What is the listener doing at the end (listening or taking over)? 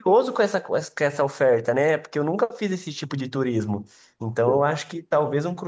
listening